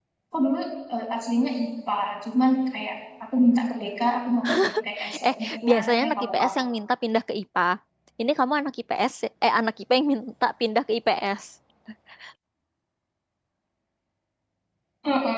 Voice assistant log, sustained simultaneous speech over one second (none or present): present